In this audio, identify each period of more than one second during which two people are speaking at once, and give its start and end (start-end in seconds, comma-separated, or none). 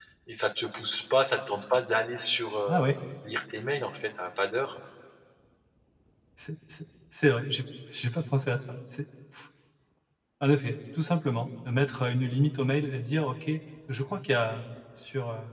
none